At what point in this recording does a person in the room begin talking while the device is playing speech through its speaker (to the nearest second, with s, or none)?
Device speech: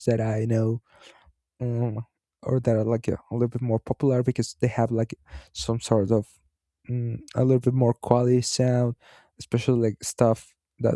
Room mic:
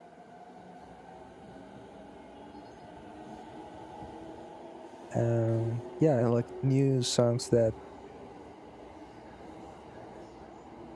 5 s